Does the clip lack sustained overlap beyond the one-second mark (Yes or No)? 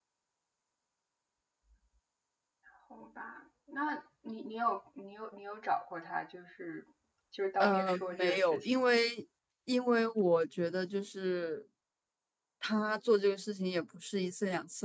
No